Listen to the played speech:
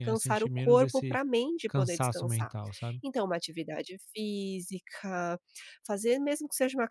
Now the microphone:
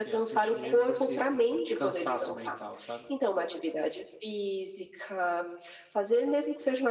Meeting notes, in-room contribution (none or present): none